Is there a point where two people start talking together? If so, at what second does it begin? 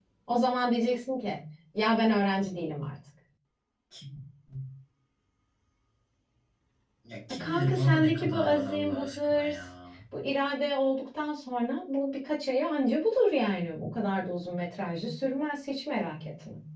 7.4 s

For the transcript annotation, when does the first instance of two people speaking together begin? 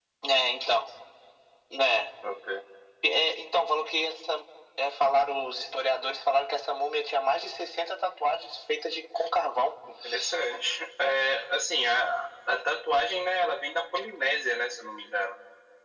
none

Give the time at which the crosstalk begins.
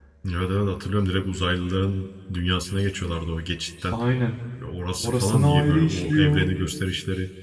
5.0 s

